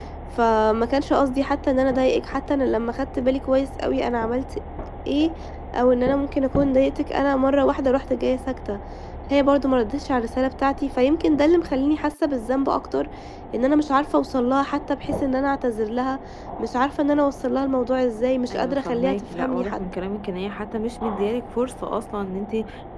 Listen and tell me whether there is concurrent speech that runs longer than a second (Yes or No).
Yes